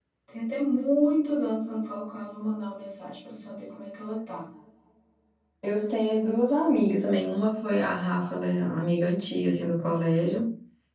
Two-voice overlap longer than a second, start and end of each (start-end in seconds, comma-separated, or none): none